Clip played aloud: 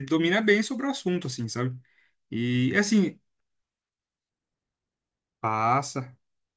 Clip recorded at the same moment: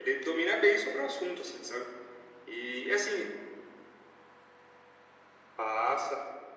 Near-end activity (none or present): none